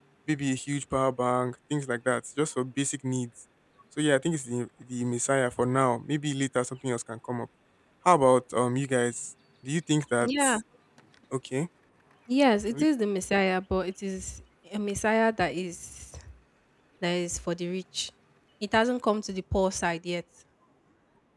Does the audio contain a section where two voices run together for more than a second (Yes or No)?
No